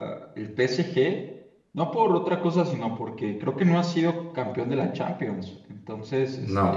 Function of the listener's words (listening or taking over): listening